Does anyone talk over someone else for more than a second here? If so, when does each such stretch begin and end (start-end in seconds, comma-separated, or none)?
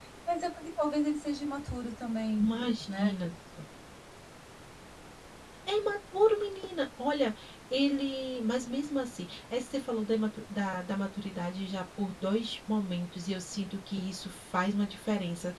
none